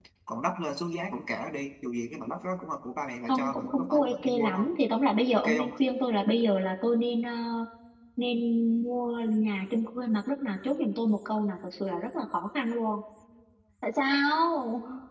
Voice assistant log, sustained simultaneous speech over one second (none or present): present